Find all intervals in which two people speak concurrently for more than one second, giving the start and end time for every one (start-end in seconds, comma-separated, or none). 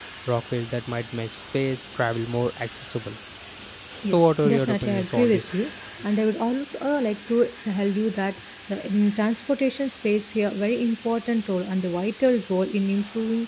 4.1-5.5